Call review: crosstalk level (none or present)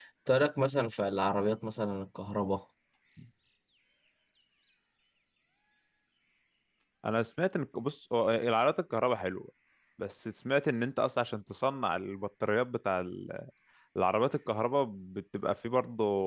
none